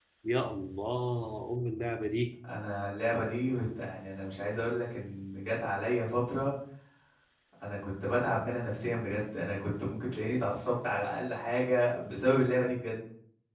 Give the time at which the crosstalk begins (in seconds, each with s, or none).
none